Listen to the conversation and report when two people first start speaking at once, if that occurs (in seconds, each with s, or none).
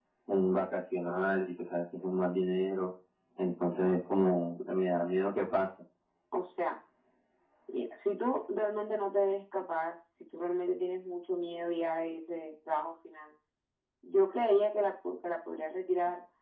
none